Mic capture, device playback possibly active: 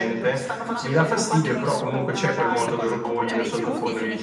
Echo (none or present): present